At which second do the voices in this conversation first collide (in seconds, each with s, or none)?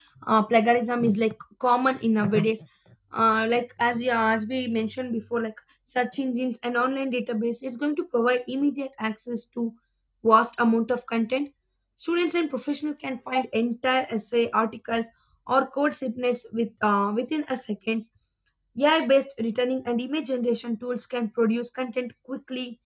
none